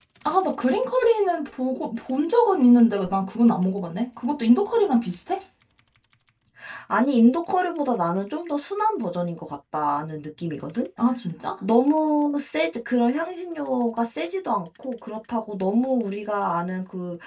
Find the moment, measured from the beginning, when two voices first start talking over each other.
none

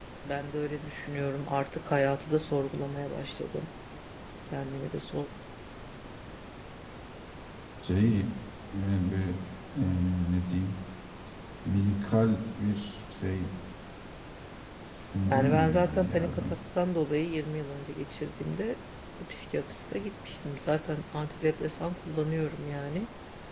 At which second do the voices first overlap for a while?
15.2 s

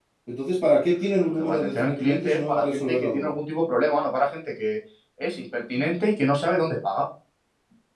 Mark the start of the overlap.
1.3 s

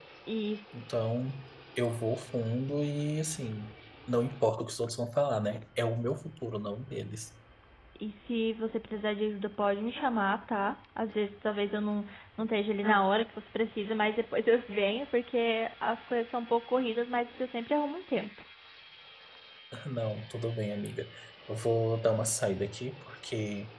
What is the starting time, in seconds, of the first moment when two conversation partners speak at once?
none

